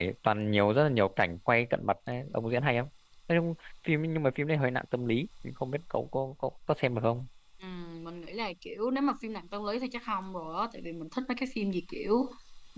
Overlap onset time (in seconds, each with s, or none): none